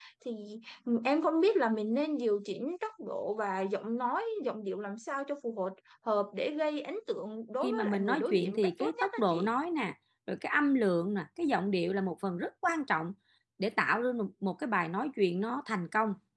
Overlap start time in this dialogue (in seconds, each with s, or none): 7.6 s